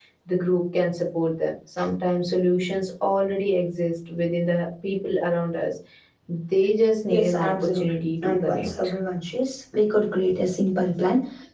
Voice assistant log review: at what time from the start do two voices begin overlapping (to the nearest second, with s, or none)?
7 s